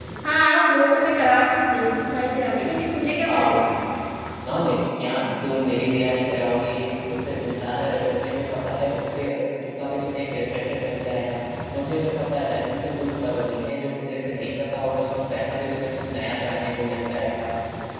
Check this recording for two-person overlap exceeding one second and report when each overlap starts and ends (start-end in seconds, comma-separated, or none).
none